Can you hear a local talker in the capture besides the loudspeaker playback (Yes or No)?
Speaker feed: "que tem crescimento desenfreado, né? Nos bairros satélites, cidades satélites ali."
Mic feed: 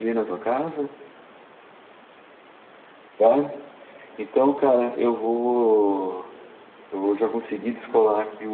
Yes